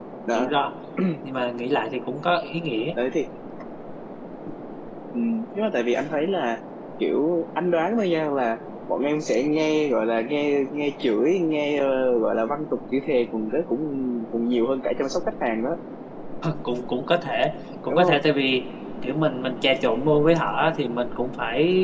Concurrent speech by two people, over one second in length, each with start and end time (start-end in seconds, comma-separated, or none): none